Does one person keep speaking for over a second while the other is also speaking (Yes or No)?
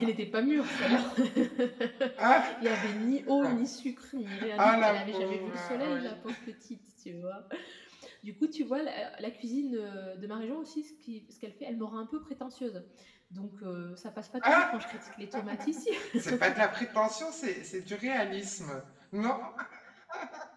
Yes